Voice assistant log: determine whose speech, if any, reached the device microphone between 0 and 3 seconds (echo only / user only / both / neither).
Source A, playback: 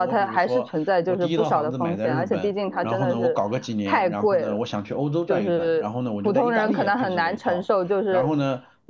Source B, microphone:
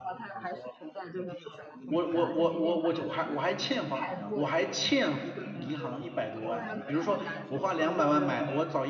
both